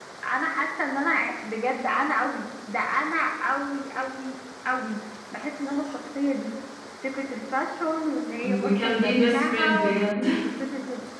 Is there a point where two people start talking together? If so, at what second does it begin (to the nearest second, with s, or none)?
8 s